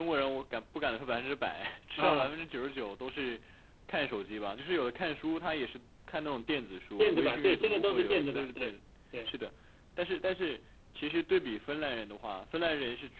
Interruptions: present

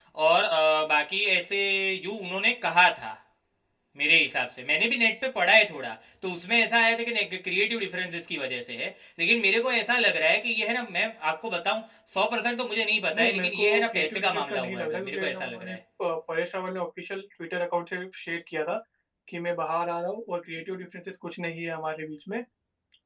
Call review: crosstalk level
present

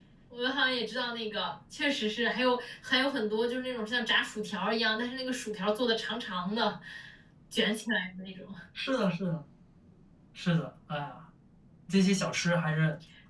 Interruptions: none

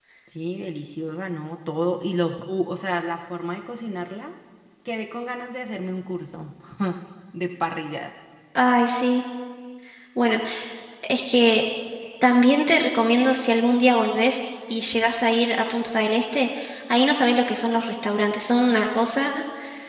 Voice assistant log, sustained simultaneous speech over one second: none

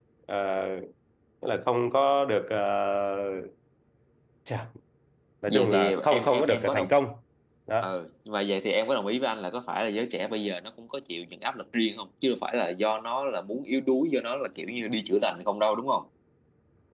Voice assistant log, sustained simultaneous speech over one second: present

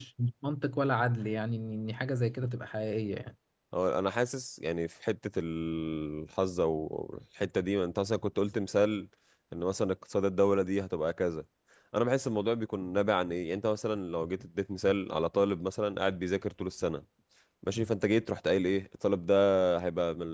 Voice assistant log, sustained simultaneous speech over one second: none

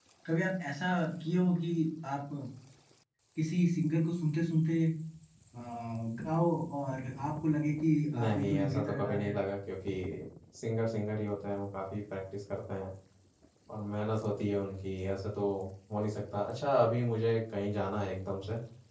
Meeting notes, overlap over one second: present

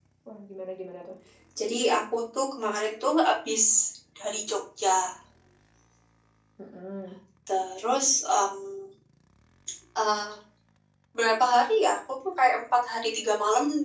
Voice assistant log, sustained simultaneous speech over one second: none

